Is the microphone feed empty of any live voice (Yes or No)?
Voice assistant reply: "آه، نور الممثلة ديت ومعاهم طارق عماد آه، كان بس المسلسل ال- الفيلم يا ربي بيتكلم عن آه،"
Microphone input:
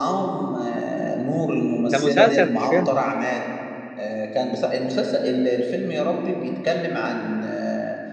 No